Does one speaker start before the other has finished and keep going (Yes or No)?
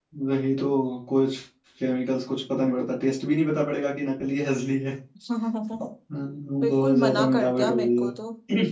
Yes